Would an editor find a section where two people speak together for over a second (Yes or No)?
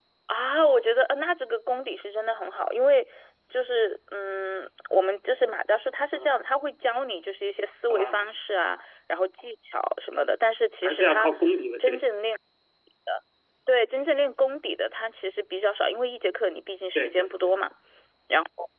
No